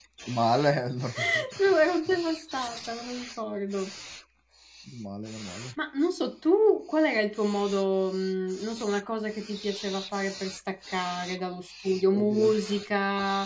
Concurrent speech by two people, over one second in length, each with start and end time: none

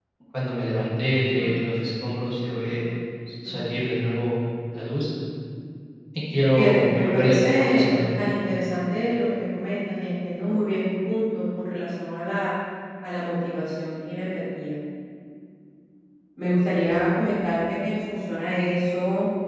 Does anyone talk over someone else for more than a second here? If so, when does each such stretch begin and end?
6.6-8.1

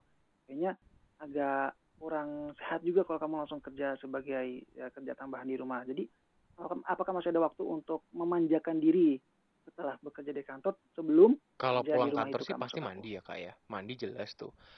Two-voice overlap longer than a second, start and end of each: 11.7-13.0

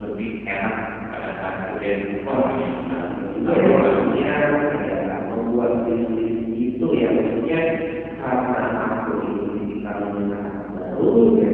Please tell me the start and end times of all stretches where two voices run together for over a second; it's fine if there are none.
3.1-4.3

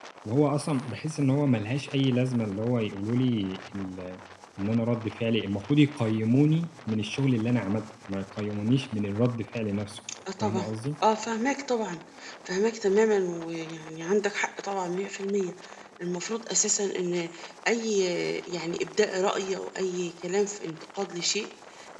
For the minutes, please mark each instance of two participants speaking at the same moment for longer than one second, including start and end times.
none

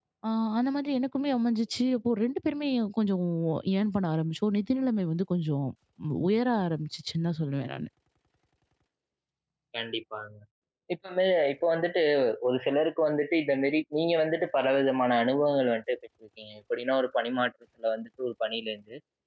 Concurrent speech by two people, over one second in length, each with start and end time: none

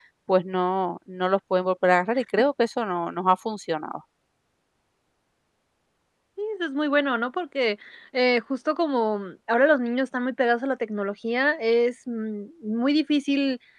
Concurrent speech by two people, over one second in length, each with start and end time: none

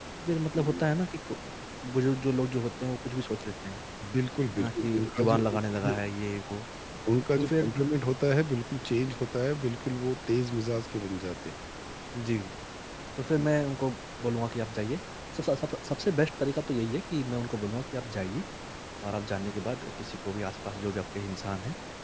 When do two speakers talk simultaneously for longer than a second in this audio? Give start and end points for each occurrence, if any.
4.6-6.0

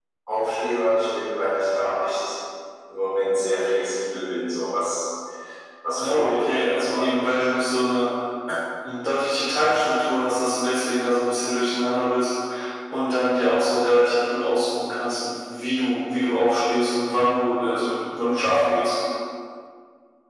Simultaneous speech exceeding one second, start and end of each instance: 6.0-7.5

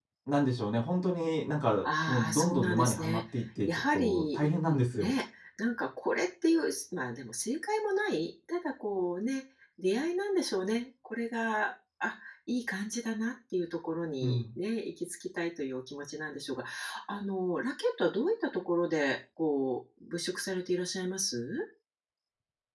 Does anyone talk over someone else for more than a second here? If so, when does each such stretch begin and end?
1.8-3.2, 3.7-5.1

